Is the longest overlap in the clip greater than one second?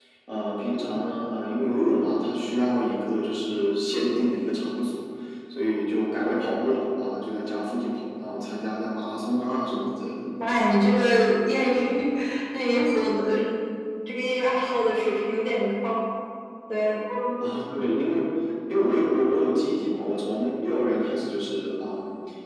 No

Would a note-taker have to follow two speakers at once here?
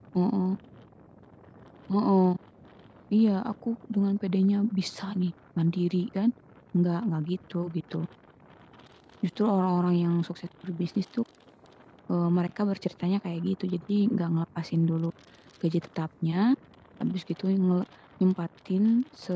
No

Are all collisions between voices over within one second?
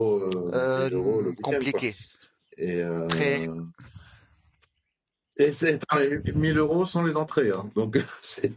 No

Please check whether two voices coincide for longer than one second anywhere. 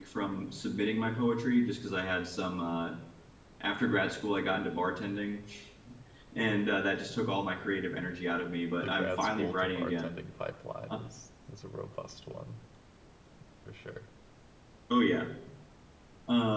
Yes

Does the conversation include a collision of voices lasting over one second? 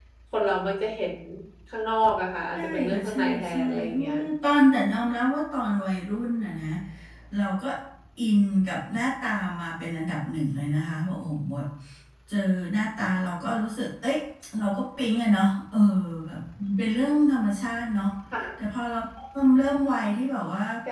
Yes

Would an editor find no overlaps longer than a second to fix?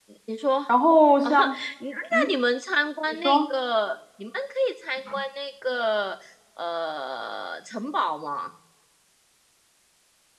Yes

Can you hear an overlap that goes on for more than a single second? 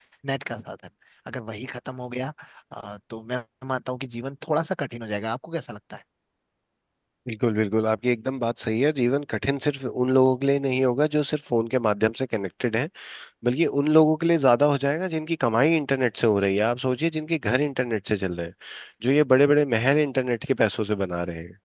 No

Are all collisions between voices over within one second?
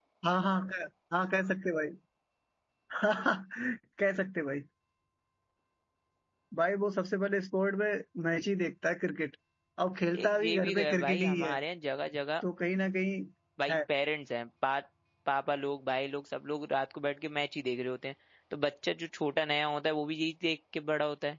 No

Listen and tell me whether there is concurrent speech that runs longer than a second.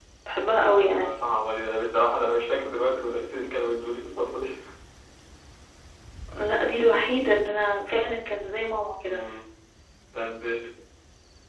No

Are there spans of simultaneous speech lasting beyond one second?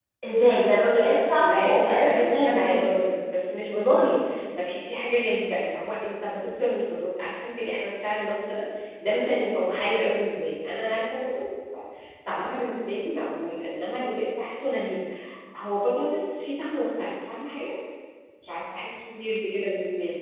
Yes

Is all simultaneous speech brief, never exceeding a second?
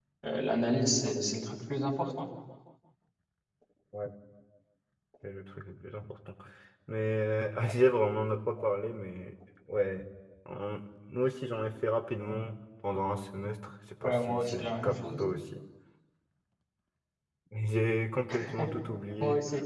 No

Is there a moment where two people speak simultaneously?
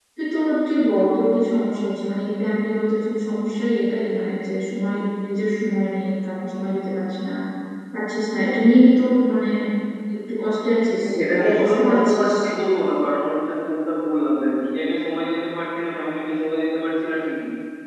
Yes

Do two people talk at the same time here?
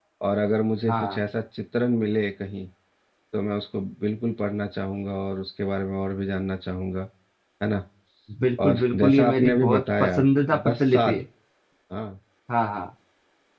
Yes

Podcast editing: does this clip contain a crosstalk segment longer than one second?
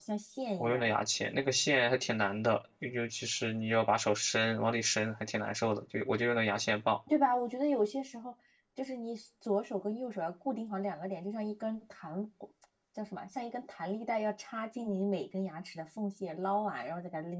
No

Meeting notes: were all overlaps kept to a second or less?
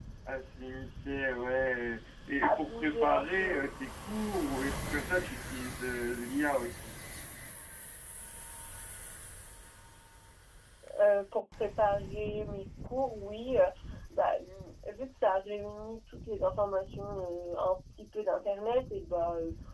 No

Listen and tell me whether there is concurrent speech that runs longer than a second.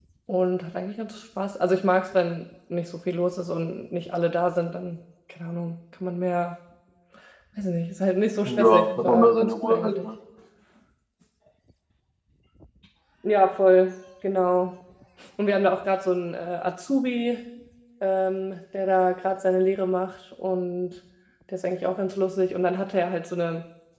Yes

